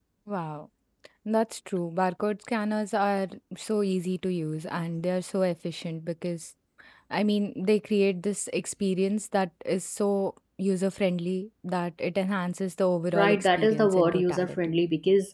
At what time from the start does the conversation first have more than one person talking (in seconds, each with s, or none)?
13.1 s